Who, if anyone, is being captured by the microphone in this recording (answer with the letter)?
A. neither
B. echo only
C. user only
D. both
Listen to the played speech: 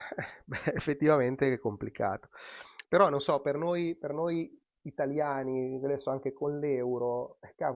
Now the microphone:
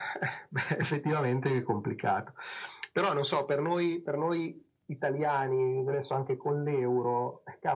B